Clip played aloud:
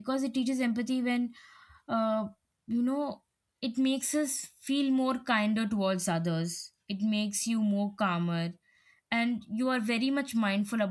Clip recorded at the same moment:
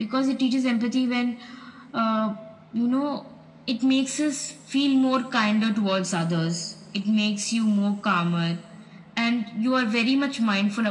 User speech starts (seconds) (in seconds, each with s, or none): none